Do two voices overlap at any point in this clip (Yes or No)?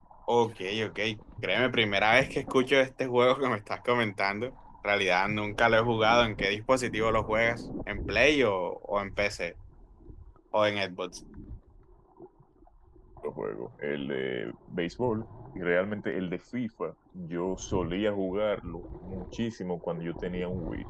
No